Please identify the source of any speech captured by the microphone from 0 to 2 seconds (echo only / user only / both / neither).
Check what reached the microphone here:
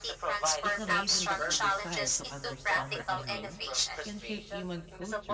both